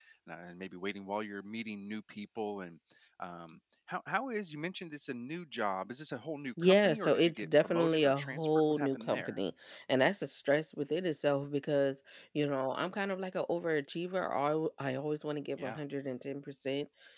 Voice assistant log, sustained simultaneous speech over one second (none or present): present